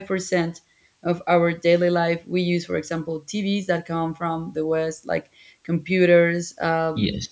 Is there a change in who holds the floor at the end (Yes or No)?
No